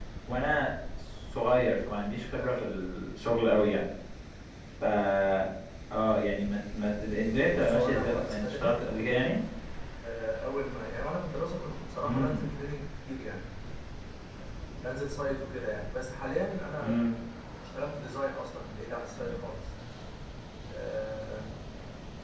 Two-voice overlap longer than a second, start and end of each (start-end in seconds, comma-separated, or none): 7.5-8.8